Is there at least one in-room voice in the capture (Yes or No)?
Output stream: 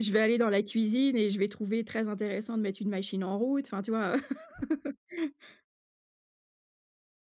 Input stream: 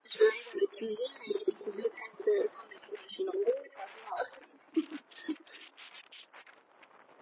No